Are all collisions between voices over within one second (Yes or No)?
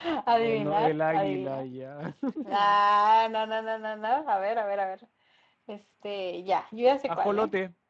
No